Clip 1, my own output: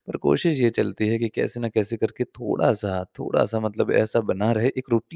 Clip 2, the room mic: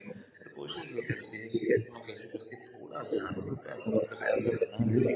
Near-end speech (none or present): none